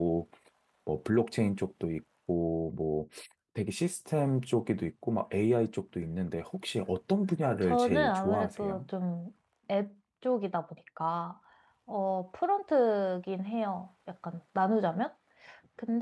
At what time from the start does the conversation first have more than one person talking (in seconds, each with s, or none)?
7.6 s